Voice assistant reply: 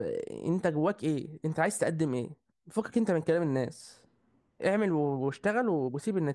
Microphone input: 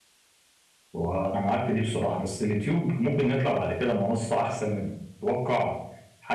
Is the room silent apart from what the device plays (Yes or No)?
No